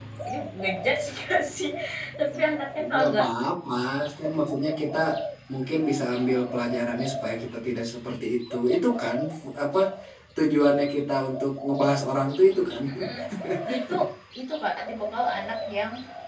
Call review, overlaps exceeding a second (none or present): none